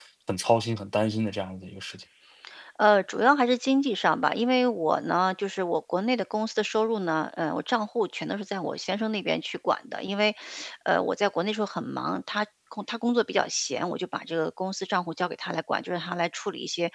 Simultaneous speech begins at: none

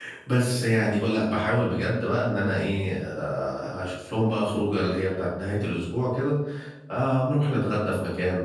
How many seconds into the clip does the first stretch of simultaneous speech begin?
none

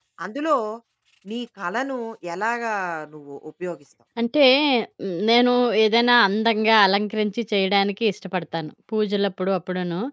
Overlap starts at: none

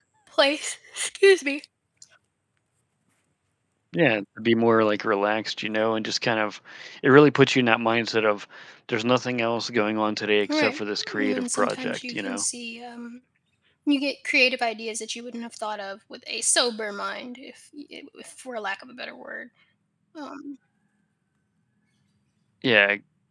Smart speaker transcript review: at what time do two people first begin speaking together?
10 s

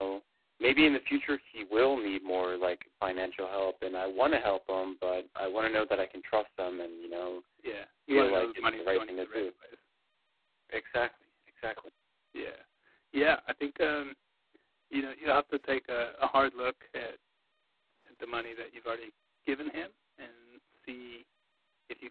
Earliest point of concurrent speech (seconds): 8 s

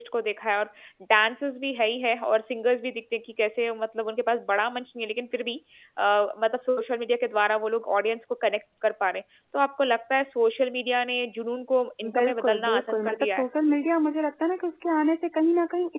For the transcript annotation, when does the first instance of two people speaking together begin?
12 s

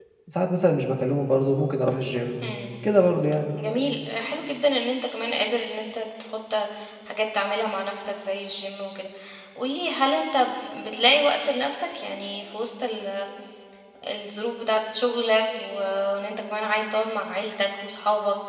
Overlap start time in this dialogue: none

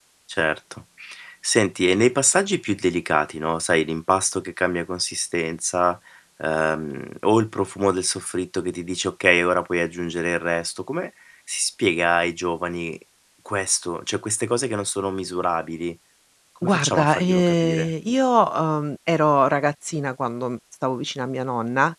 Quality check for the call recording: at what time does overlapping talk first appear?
17 s

